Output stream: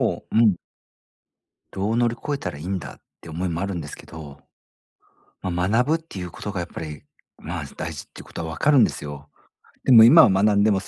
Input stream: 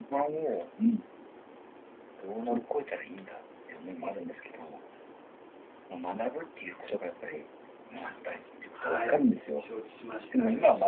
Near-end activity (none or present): present